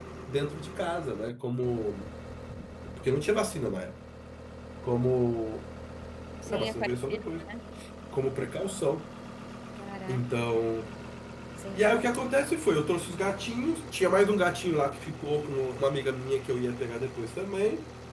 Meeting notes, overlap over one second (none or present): none